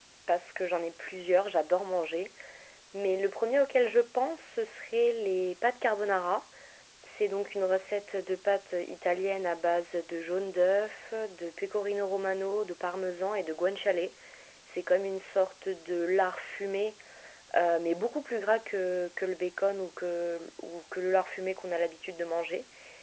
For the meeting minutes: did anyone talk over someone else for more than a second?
No

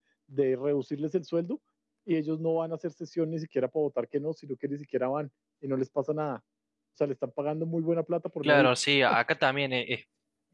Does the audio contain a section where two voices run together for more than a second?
No

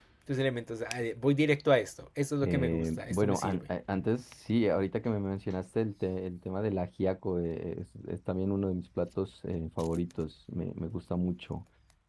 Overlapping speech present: Yes, from 2.4 s

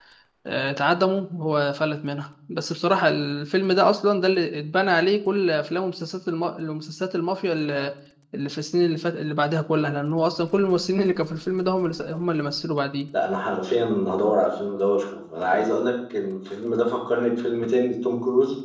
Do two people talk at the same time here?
No

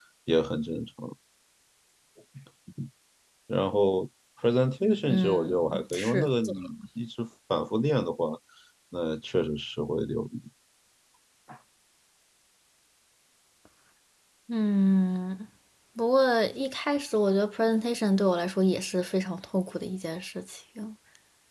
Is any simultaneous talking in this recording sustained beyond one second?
Yes, from 5.1 s

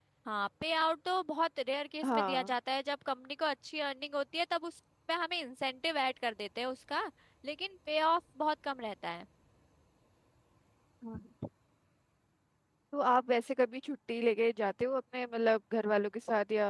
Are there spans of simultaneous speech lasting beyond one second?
No

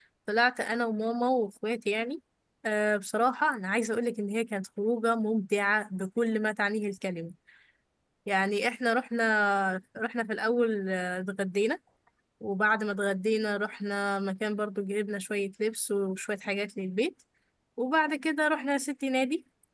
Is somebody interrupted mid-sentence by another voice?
No

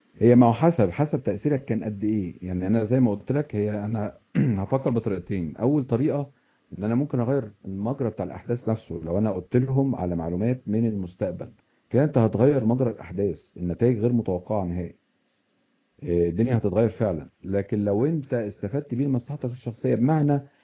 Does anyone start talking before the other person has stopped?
No

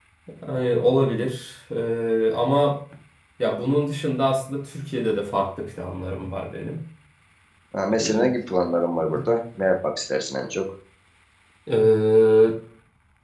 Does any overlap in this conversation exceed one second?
No

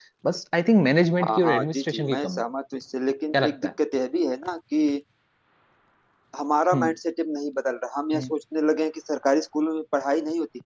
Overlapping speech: Yes, from 1.2 s

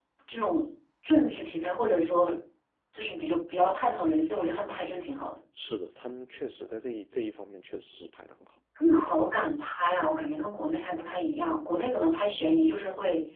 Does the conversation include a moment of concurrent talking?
No

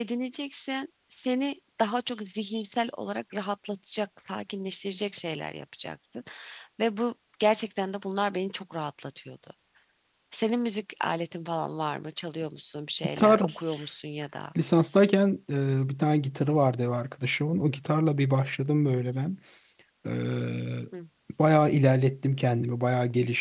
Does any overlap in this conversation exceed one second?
No

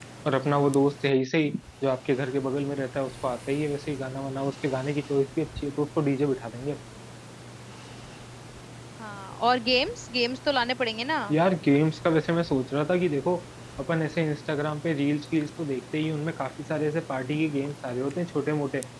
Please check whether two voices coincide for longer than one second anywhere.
No

